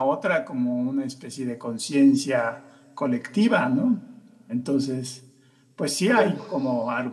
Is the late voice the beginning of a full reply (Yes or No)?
No